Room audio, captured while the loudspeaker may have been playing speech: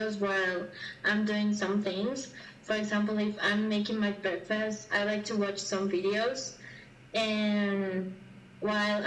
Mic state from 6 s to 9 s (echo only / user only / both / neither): echo only